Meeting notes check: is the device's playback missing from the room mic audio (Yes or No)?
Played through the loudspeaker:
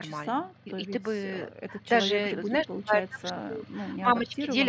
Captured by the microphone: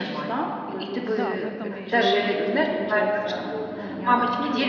No